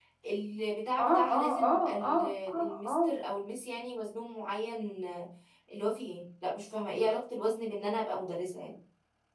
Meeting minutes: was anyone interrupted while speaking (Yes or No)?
Yes